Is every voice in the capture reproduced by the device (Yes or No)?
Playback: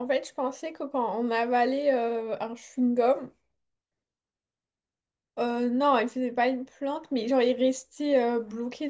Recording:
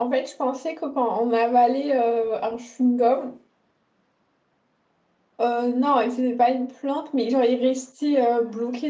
Yes